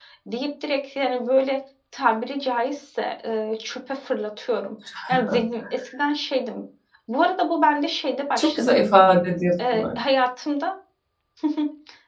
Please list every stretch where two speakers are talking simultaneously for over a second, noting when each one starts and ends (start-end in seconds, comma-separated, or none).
none